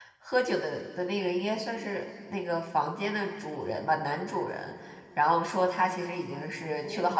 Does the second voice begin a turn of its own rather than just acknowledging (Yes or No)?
No